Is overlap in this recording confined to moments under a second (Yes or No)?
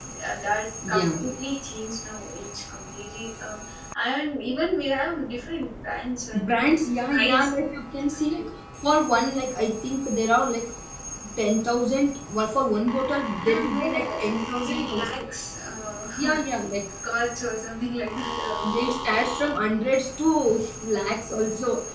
No